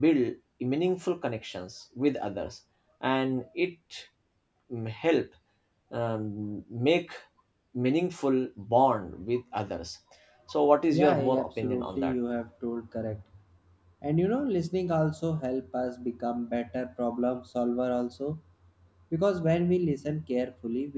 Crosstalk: present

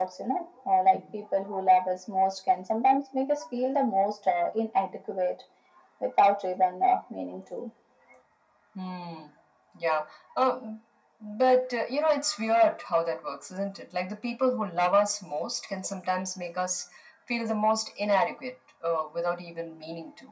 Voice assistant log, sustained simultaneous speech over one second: none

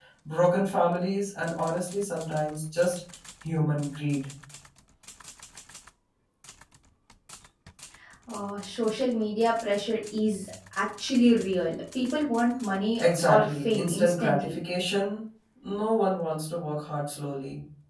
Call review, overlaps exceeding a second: present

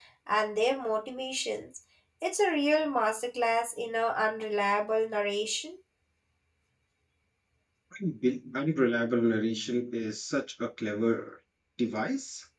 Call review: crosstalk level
none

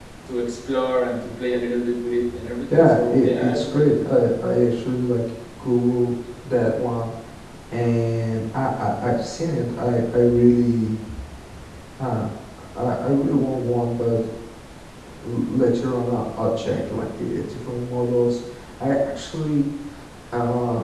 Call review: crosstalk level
present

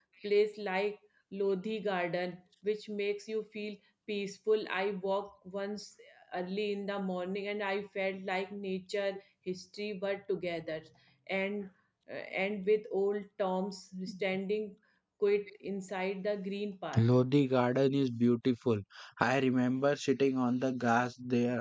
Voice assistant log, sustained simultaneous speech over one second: none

